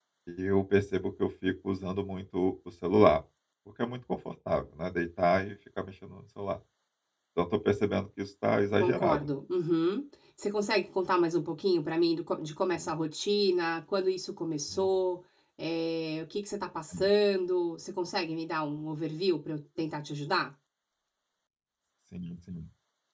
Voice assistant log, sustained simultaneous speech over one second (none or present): none